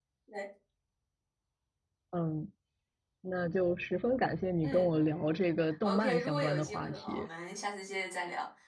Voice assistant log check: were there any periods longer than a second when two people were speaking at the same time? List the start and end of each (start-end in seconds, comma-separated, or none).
5.8-7.3